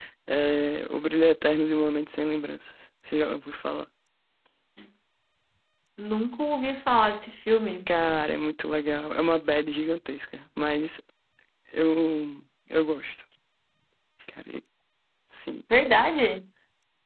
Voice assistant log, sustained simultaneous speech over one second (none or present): none